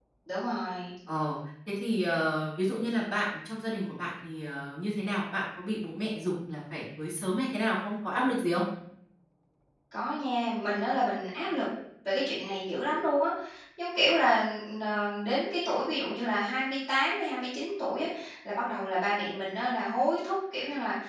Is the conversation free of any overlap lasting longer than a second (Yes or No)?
Yes